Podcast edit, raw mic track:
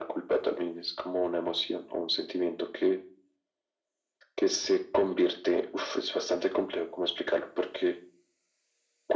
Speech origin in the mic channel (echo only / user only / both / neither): echo only